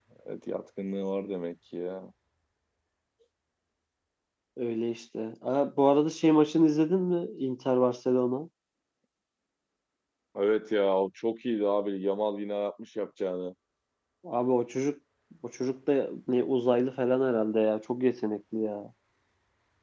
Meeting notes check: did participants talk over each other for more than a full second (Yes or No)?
No